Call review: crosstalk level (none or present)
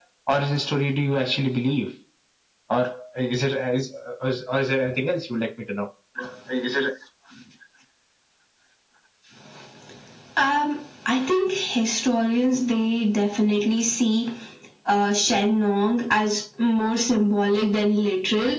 none